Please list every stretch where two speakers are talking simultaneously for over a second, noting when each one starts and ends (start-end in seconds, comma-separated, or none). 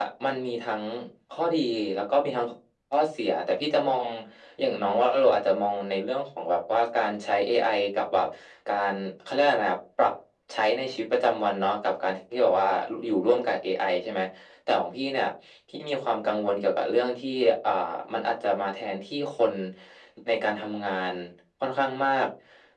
none